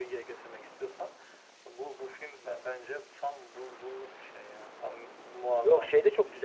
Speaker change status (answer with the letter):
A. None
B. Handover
B